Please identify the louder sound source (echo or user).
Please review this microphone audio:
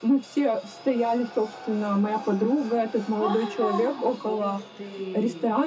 echo